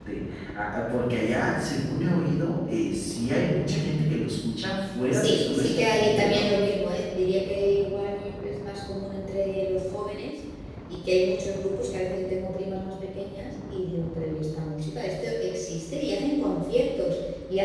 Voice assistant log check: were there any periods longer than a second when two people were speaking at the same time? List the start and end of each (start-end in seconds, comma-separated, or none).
5.1-6.5